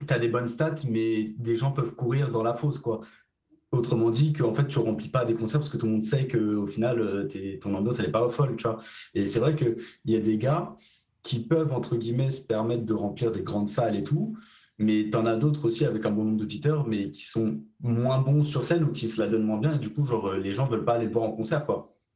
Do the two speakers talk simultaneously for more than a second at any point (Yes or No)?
No